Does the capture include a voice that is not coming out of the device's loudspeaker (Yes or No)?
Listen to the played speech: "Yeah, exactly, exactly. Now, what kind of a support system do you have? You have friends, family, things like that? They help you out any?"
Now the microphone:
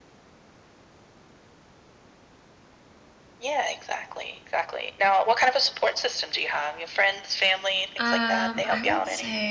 Yes